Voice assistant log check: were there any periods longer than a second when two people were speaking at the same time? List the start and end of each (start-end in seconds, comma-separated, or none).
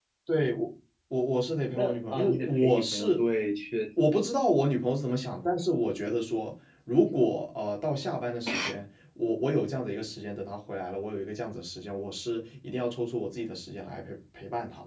1.7-3.2